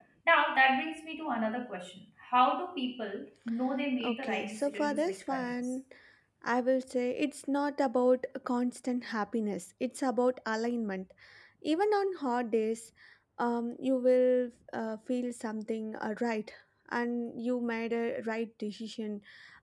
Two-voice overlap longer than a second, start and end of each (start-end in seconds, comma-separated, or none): 4.0-5.7